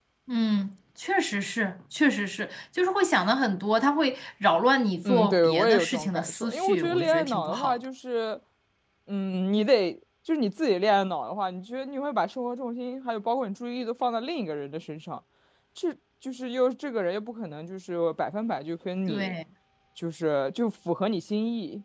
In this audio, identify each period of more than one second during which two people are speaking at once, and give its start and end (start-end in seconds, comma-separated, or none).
5.0-7.8